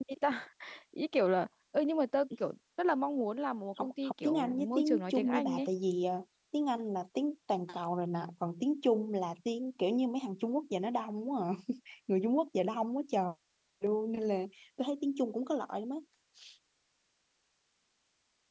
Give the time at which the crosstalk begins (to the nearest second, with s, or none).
4 s